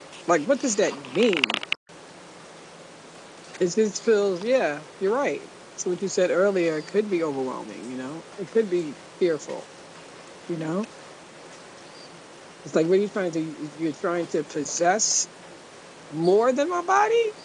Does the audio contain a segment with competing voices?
No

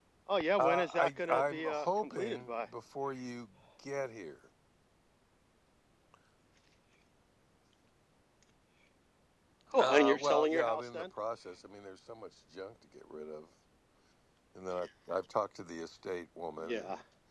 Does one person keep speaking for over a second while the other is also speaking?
Yes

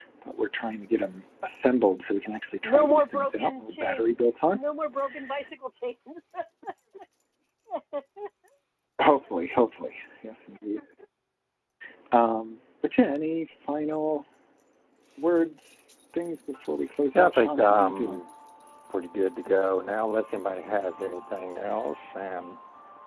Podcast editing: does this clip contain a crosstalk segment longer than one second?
Yes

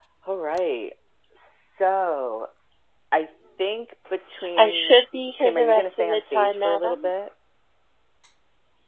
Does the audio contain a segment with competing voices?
Yes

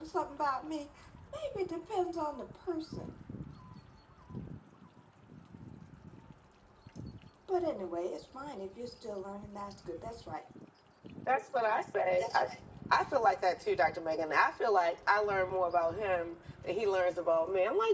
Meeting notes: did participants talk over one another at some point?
No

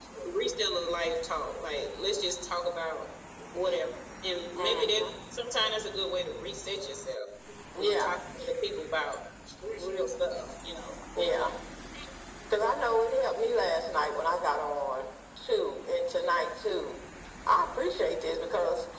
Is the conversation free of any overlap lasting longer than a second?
Yes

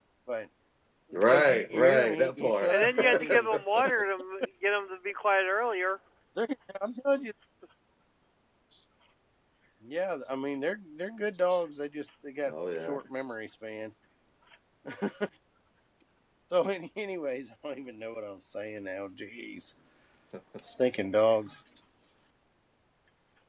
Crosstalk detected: Yes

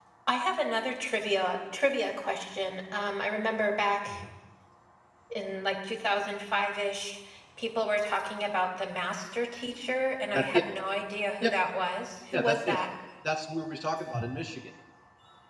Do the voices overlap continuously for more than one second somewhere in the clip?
No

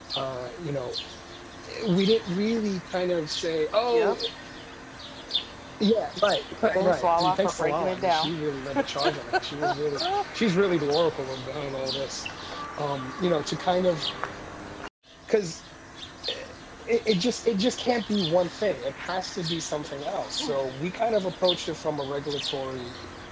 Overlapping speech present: Yes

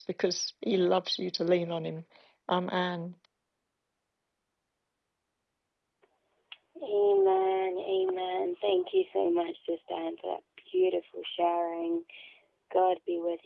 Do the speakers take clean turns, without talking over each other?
Yes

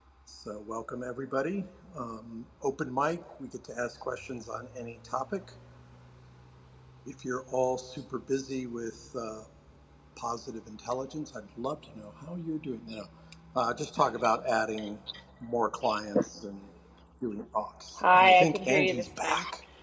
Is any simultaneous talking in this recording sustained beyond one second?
Yes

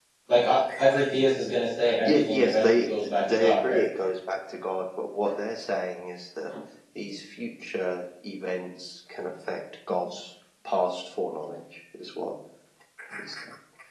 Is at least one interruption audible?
Yes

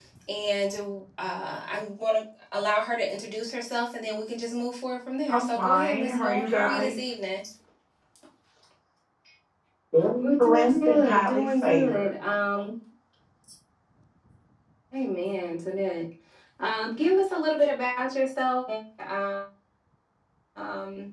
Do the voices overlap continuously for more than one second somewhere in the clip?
Yes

